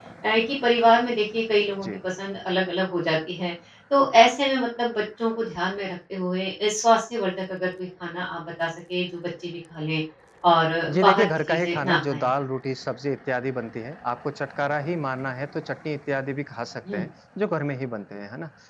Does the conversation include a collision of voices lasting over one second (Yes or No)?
Yes